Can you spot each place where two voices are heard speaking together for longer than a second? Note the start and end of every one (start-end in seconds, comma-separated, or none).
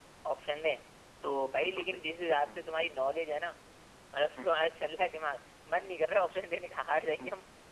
none